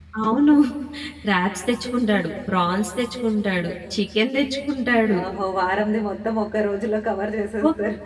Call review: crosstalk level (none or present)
none